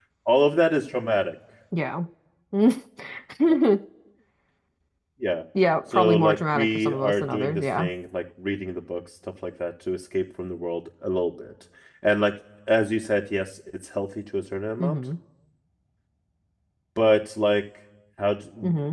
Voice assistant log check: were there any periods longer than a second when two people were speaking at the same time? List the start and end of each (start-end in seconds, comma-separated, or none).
5.9-7.9